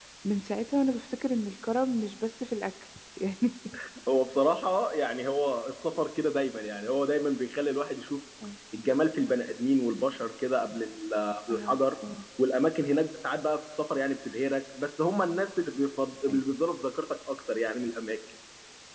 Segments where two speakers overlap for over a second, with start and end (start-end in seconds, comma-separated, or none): none